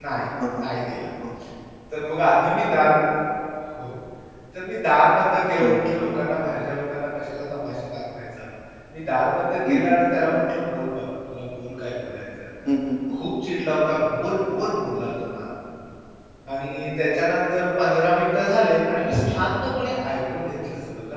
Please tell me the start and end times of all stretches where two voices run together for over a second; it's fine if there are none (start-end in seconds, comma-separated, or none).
none